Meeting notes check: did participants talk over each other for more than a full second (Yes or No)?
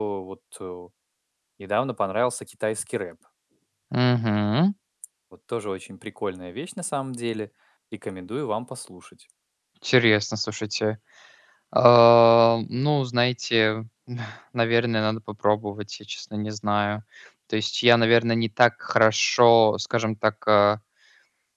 No